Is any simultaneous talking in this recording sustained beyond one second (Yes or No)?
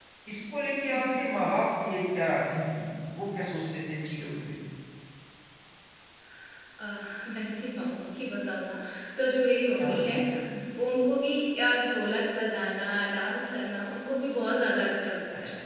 No